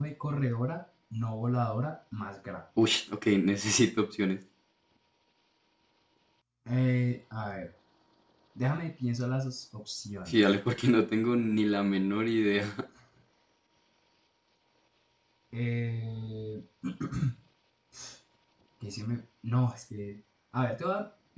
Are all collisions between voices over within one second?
Yes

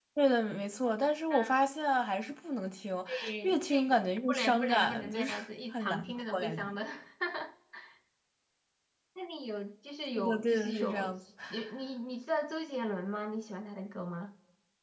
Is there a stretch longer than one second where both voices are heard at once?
Yes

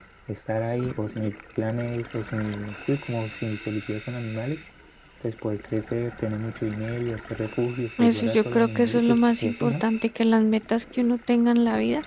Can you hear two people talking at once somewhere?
Yes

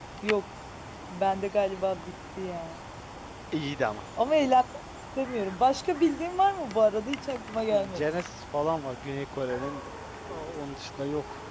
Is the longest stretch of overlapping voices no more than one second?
Yes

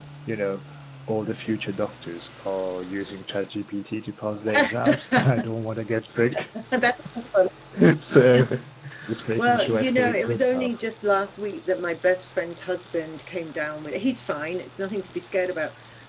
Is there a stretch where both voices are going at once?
Yes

